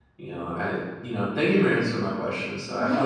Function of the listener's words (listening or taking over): listening